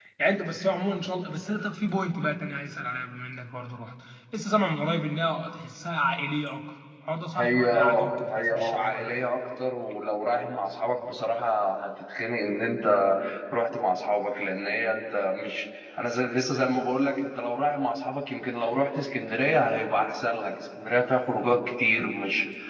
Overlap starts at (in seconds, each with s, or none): 7.4 s